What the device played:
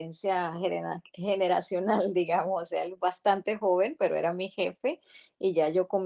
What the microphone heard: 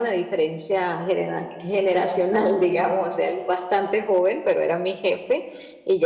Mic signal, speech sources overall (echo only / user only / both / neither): echo only